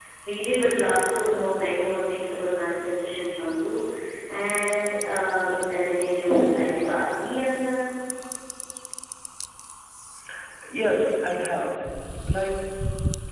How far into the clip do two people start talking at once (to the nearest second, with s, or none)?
none